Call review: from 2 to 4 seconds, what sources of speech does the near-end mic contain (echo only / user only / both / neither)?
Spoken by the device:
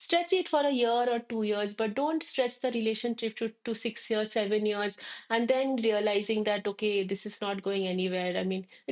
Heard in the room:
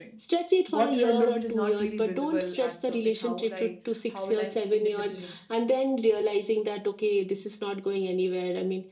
both